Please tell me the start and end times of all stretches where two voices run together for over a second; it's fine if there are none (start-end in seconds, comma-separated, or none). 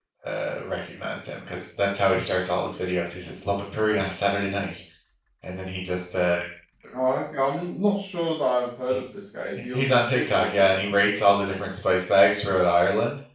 9.7-11.1